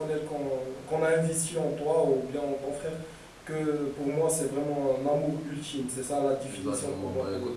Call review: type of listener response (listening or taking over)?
taking over